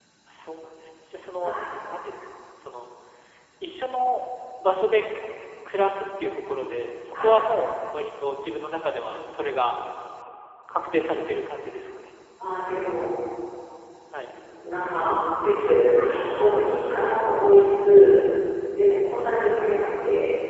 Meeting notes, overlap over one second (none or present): none